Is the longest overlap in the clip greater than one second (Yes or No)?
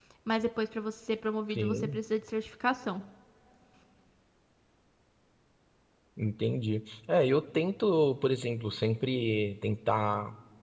No